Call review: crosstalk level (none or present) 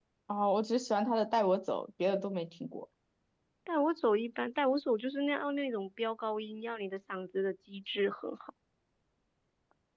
none